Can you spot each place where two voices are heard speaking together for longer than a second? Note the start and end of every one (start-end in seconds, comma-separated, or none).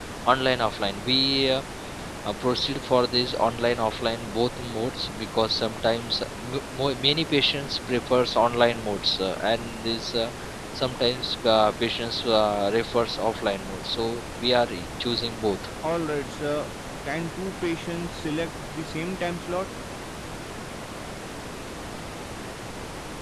none